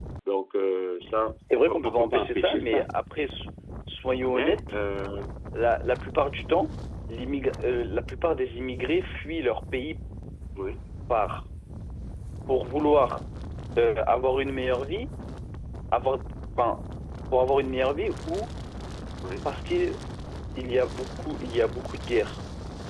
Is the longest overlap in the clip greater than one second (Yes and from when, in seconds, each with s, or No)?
Yes, from 1.6 s